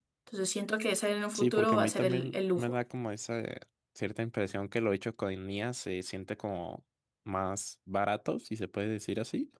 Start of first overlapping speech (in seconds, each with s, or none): 1.4 s